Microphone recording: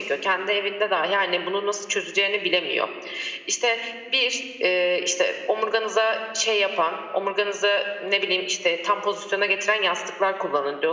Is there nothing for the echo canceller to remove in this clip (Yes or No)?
No